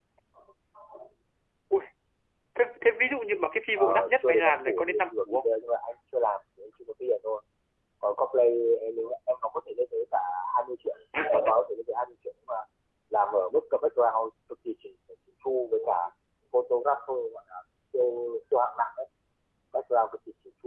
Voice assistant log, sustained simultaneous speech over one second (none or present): present